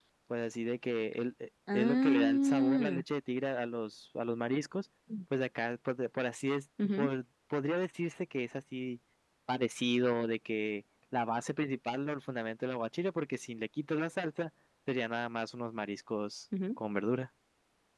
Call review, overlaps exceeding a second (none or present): present